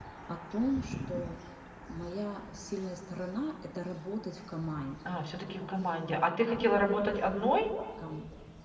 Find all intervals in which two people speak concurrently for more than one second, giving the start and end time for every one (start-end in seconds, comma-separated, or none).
none